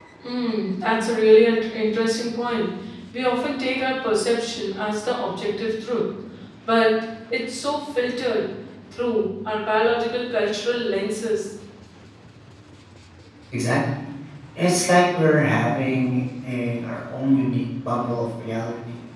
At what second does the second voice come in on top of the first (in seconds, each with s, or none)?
none